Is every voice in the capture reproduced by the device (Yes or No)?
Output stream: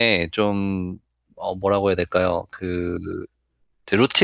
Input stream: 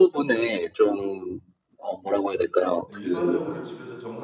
No